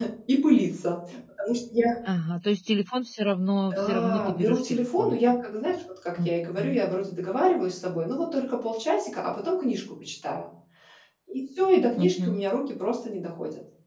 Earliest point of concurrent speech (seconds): 3.7 s

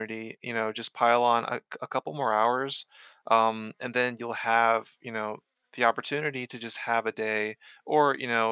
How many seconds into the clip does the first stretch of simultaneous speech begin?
none

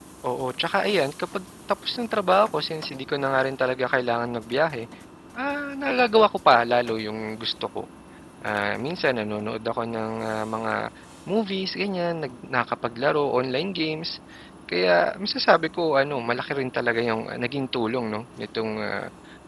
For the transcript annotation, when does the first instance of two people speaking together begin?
none

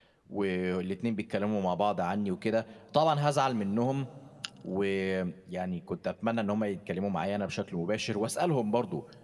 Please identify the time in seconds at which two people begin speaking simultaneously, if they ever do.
none

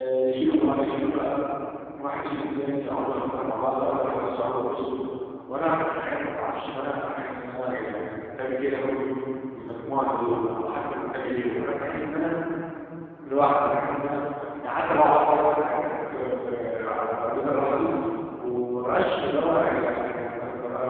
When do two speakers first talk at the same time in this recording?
none

